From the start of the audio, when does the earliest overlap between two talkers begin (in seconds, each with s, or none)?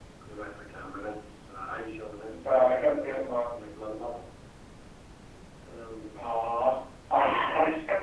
2.3 s